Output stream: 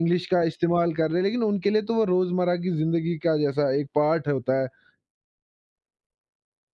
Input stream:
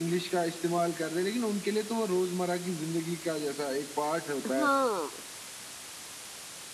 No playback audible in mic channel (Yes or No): No